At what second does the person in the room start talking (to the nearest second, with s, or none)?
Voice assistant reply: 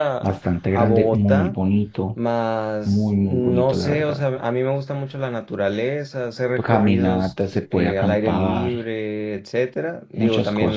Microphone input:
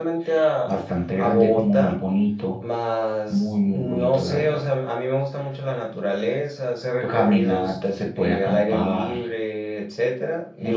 none